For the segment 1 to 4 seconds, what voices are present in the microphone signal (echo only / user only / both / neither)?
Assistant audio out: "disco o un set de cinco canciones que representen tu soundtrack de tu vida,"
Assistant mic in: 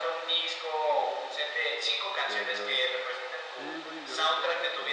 both